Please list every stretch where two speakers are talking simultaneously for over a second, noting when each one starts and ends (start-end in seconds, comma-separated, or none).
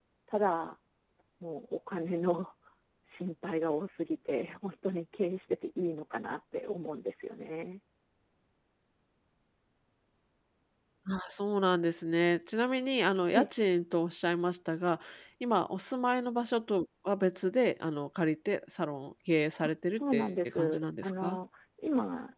19.9-21.4